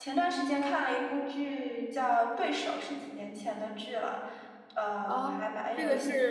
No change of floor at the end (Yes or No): No